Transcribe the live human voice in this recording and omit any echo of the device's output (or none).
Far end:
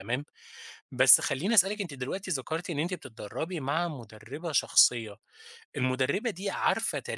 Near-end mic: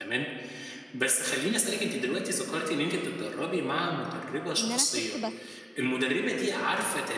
إن أنا أخس بس،